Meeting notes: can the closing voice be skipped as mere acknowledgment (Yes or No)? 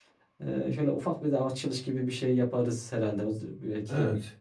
No